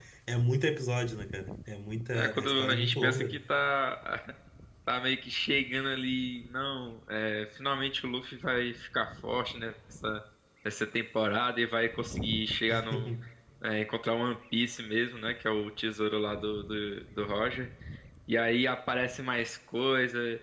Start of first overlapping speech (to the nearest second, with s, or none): 2 s